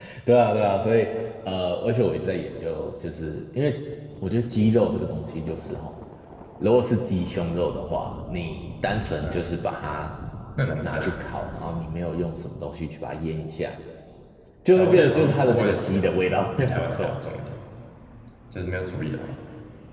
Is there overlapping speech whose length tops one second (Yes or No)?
Yes